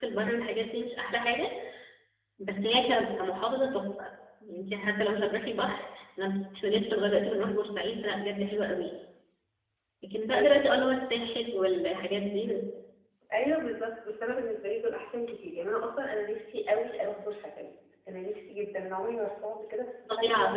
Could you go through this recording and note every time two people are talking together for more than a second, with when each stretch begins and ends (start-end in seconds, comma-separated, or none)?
none